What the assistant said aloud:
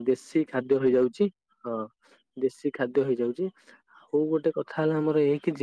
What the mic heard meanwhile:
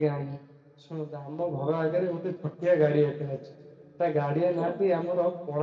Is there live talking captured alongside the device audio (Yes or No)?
Yes